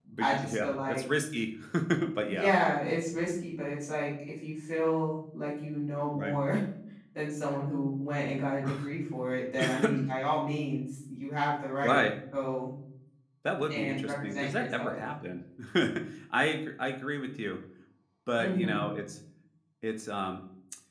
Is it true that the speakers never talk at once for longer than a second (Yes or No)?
No